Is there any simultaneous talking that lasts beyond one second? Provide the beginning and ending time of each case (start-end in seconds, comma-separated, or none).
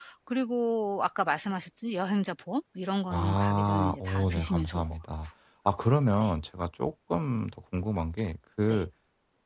3.1-4.9